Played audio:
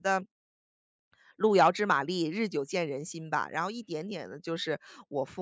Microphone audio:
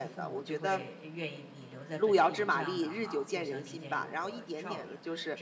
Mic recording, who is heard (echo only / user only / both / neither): both